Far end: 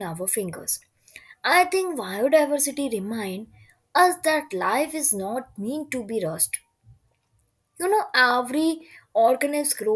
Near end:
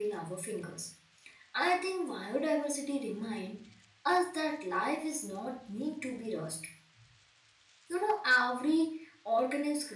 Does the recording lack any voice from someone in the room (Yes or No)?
Yes